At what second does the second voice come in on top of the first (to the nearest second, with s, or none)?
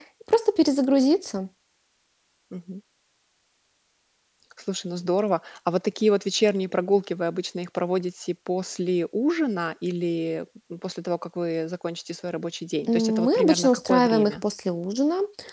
13 s